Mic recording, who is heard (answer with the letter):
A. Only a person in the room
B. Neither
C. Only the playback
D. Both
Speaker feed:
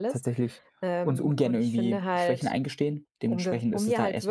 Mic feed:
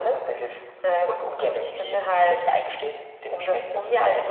C